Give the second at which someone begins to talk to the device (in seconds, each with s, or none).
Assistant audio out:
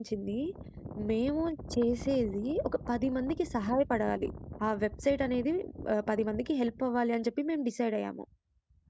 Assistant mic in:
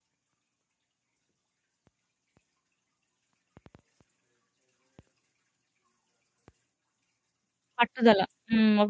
7.8 s